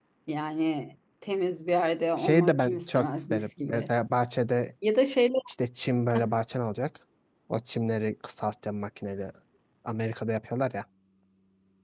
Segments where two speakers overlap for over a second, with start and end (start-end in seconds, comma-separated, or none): 2.2-3.9